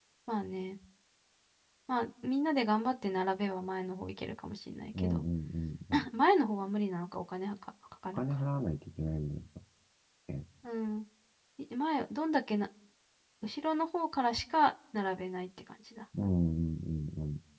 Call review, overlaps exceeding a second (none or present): none